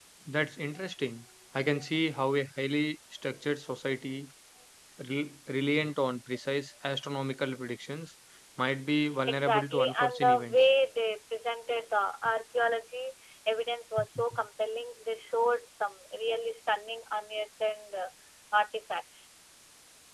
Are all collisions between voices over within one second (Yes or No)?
No